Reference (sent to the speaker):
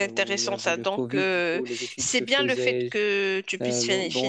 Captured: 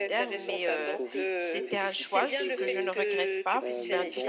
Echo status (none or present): present